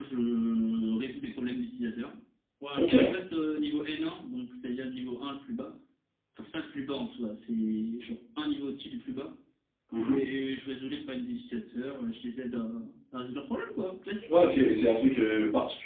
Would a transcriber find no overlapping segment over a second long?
Yes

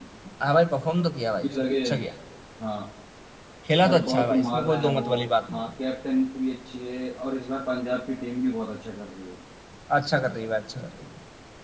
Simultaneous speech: Yes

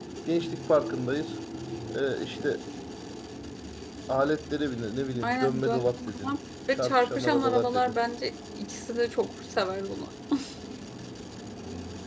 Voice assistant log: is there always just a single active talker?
No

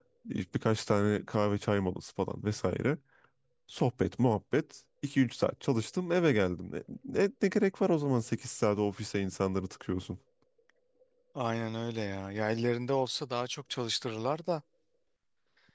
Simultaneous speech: No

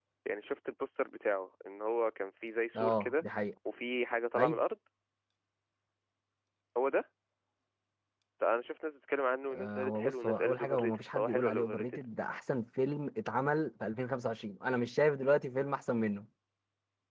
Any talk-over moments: Yes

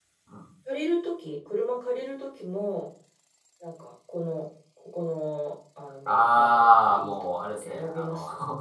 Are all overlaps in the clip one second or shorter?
No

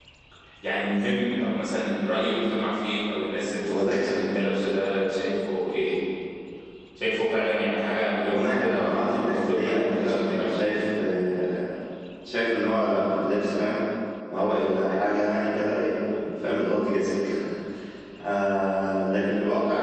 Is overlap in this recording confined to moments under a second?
No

